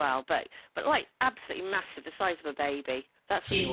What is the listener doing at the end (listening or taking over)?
taking over